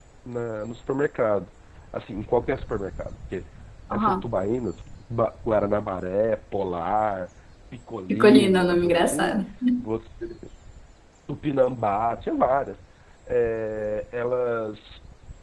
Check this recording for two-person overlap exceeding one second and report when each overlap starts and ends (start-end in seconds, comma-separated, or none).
8.1-9.3